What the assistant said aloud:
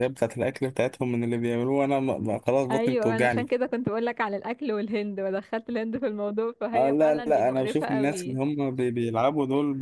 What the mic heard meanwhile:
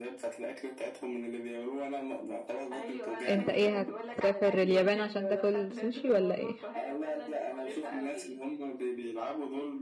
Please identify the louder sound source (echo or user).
user